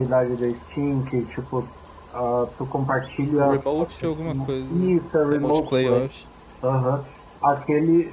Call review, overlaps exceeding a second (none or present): present